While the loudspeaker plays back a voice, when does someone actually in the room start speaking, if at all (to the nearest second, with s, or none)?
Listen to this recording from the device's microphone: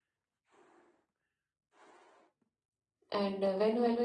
3 s